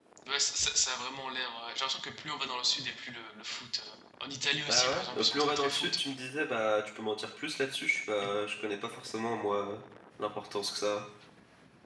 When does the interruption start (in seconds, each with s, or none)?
4.7 s